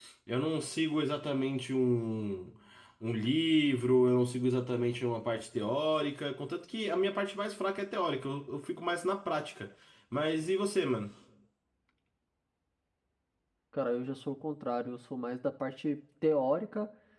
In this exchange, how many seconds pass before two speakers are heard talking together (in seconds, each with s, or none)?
none